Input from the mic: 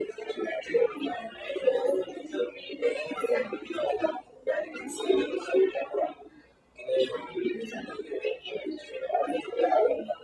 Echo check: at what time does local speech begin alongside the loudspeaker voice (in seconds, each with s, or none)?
none